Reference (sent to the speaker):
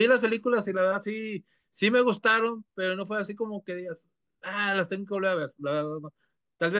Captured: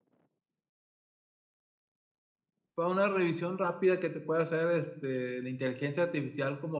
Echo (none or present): none